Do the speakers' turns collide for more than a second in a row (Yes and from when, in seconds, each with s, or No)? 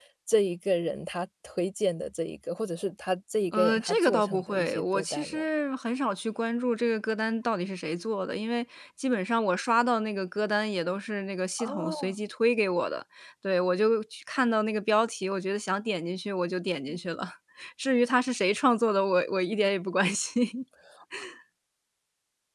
Yes, from 3.5 s